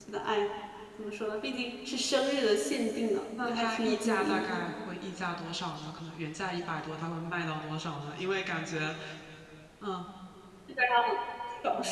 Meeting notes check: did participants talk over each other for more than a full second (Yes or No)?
Yes